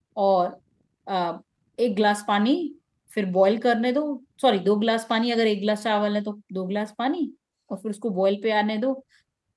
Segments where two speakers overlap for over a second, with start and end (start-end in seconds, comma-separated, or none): none